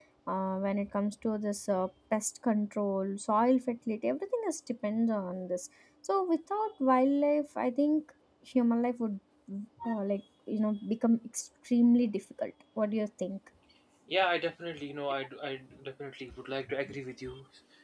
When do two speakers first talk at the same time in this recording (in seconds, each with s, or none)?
none